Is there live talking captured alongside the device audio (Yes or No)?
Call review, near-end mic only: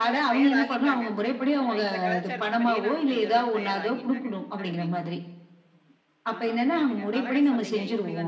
Yes